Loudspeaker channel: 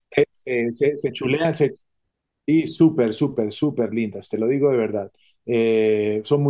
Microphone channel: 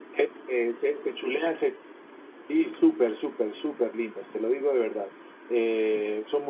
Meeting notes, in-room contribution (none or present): none